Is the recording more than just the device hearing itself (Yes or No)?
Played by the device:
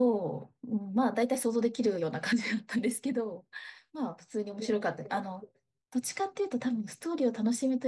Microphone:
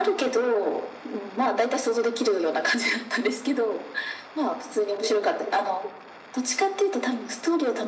No